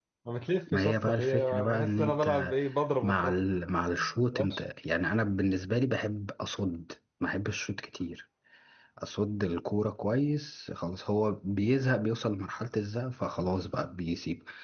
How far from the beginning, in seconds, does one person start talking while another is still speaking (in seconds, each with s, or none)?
0.7 s